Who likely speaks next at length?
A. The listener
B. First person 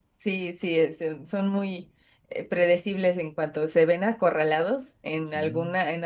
B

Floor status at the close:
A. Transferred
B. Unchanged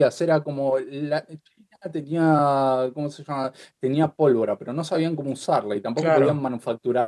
B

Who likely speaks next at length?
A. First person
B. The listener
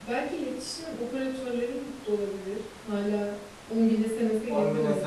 B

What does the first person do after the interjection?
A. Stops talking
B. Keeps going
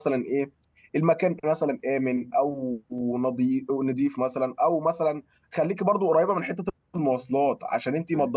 B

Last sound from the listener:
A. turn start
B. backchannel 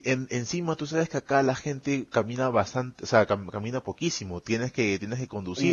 A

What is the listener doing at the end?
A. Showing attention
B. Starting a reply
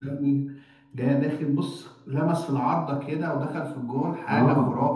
B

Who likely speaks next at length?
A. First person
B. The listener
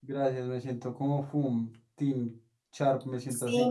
B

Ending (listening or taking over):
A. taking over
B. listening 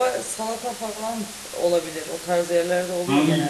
A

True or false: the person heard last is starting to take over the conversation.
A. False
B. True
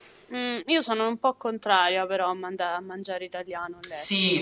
B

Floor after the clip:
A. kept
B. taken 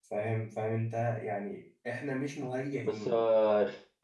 B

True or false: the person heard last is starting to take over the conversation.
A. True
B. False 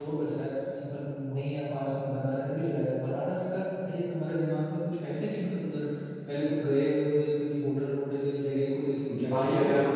A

